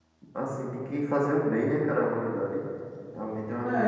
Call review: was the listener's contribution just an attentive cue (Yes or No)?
No